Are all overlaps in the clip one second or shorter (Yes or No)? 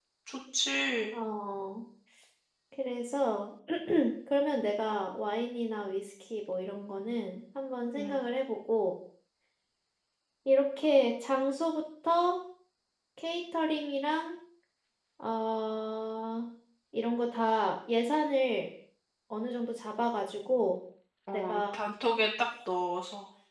Yes